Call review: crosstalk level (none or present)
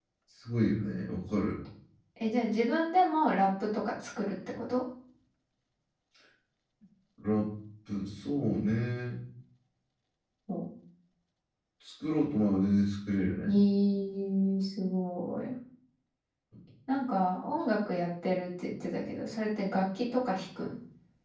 none